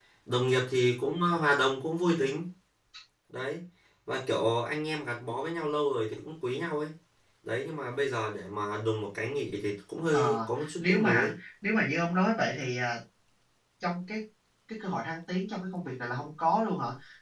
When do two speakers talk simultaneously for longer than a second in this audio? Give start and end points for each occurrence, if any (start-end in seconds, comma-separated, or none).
10.1-11.3